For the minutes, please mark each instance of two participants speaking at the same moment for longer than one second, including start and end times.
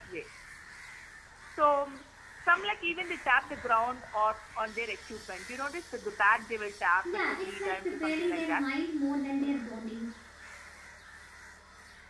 7.0-8.6

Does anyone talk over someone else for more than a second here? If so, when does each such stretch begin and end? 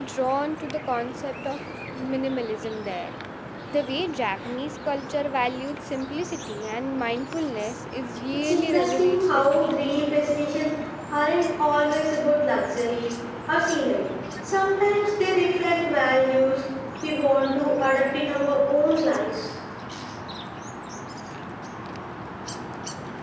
8.4-9.7

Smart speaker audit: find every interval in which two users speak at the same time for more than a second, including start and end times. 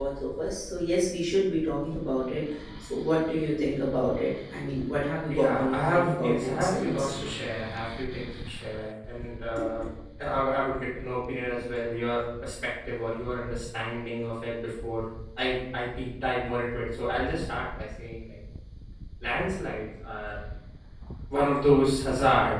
5.3-7.1

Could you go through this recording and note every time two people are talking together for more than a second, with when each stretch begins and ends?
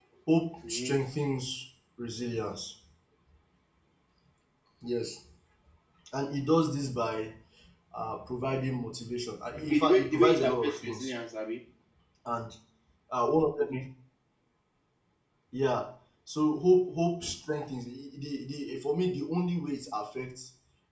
9.6-11.1

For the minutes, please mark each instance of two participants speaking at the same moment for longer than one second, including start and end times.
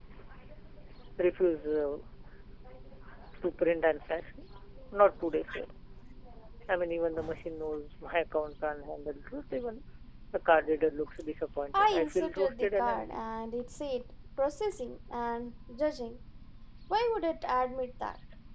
11.7-13.2

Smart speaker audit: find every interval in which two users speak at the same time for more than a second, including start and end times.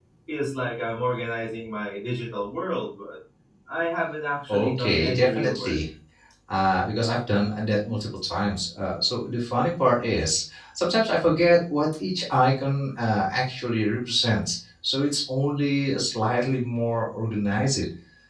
4.5-5.8

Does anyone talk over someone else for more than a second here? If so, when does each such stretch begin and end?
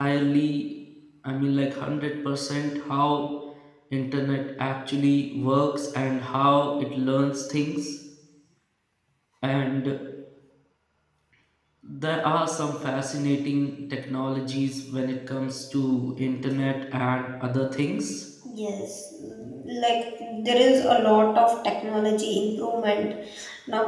none

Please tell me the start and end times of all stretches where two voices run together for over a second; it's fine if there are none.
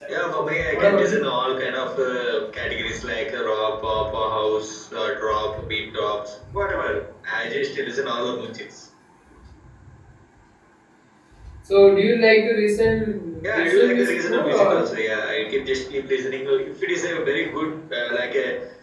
13.4-14.8

